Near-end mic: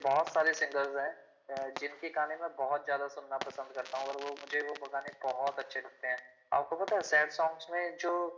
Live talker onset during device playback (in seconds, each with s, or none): none